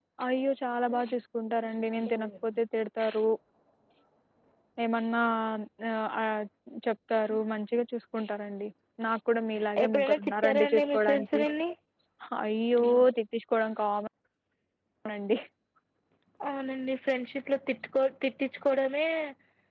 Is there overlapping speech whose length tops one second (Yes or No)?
Yes